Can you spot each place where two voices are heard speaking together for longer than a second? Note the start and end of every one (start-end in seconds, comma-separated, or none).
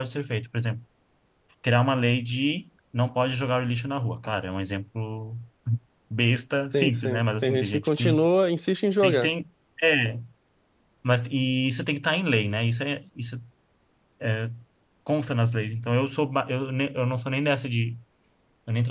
6.7-8.2